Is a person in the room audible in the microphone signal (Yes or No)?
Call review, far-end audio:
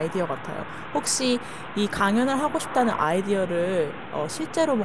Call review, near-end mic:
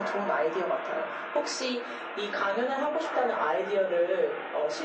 No